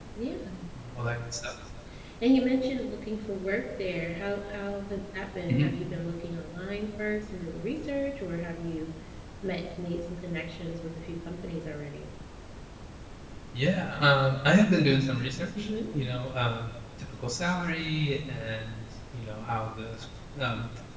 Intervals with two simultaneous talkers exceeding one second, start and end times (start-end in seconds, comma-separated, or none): none